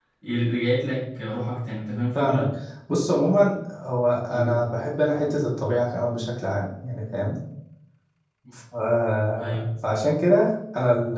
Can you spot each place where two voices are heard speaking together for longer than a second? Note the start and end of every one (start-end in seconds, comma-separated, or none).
none